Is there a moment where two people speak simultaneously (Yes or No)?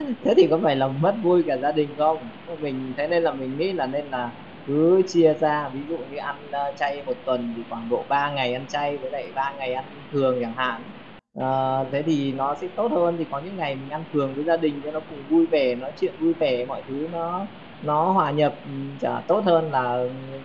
No